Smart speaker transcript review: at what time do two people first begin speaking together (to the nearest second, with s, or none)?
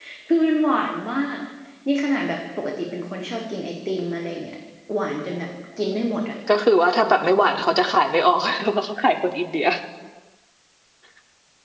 none